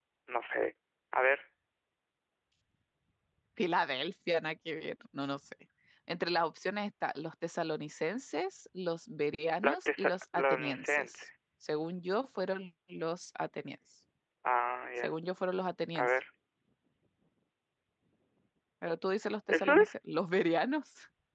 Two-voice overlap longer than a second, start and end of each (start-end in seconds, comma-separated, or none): 9.6-11.2